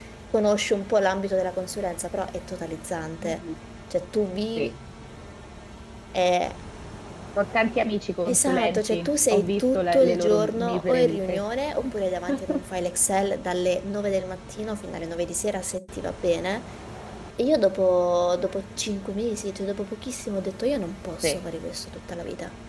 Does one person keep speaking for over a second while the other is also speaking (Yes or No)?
Yes